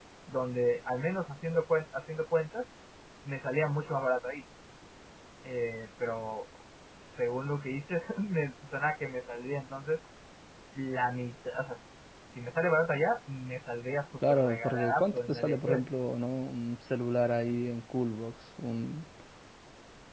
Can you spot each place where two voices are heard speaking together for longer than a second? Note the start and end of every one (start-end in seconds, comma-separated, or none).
14.3-15.9